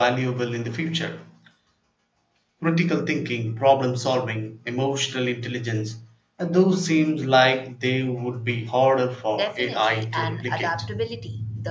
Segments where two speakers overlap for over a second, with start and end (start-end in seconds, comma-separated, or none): 9.3-10.8